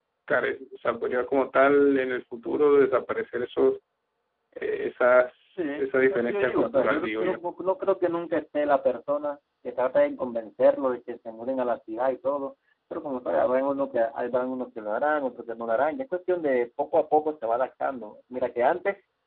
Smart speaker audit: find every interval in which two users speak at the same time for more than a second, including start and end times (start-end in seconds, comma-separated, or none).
6.1-7.4